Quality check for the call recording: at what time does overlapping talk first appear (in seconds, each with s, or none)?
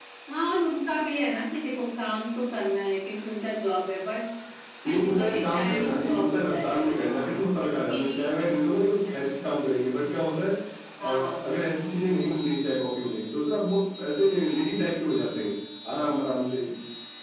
4.9 s